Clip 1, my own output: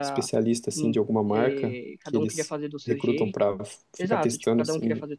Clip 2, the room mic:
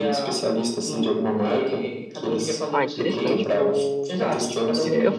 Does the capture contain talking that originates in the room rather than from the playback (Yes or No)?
Yes